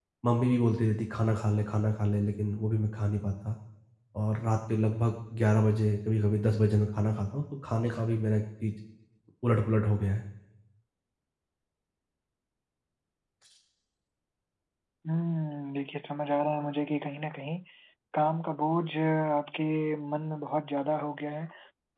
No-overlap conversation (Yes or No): Yes